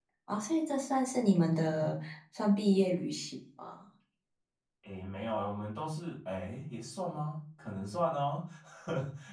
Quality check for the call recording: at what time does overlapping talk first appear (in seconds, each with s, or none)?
none